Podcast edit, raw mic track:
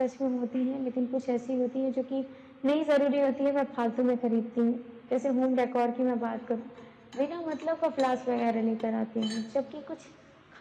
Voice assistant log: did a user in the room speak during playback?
Yes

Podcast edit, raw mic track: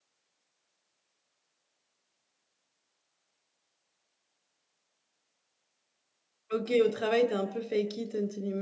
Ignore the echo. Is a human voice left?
Yes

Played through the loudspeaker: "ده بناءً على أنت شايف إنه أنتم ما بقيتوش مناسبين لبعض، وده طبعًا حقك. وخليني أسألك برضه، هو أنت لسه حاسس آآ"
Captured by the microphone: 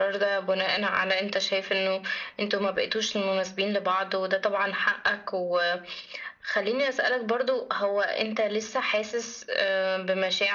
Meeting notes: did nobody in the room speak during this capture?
Yes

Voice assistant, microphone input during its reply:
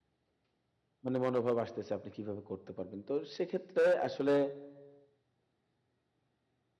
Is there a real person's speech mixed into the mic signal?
Yes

